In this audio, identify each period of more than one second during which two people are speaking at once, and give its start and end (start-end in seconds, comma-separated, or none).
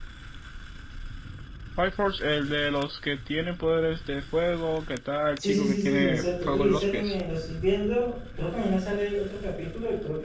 5.4-7.2